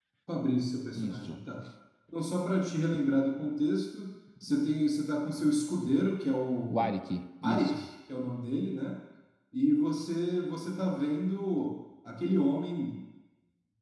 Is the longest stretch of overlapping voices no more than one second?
Yes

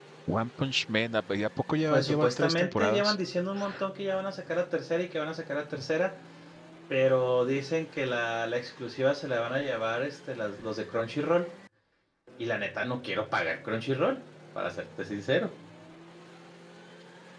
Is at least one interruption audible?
Yes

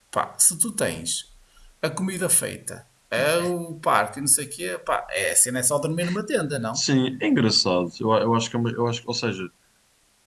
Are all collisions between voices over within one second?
Yes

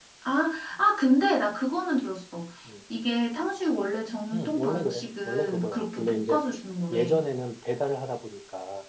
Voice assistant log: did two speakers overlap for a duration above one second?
Yes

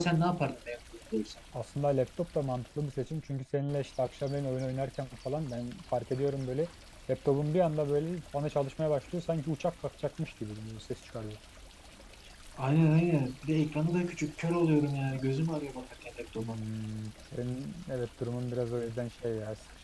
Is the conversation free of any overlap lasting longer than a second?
Yes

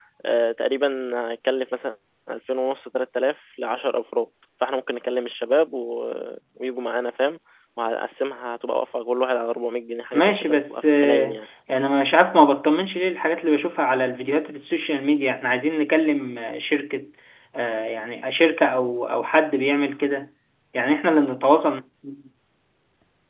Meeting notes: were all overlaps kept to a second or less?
No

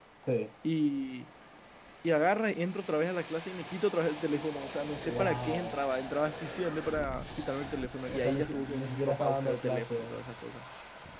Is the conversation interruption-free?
No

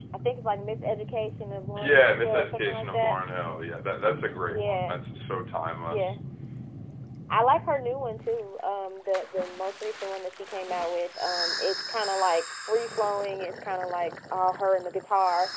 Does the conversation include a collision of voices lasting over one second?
Yes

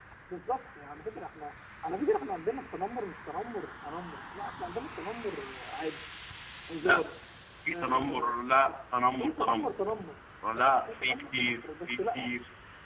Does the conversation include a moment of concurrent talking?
Yes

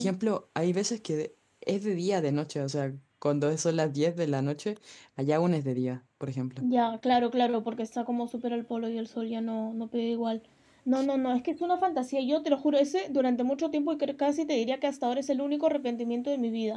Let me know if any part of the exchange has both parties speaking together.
No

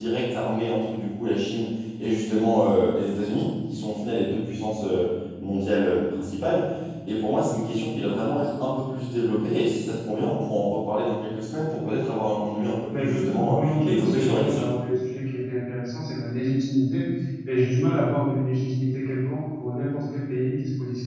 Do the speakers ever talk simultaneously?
Yes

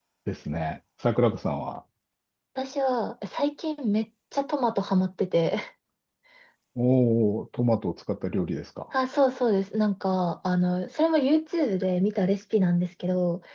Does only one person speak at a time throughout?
Yes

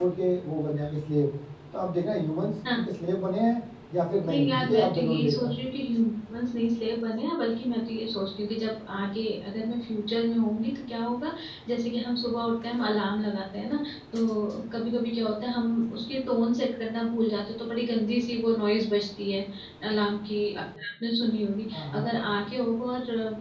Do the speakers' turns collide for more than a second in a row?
Yes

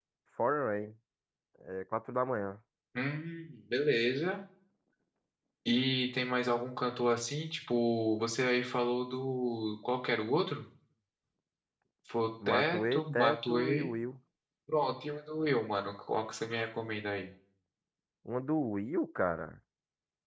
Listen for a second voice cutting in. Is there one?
Yes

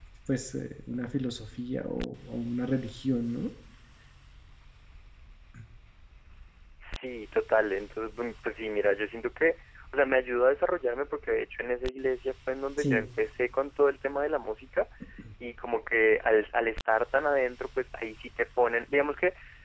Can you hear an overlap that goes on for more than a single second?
No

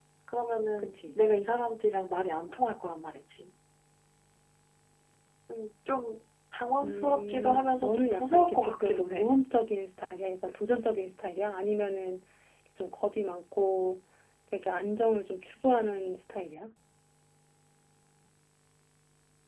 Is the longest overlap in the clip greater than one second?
Yes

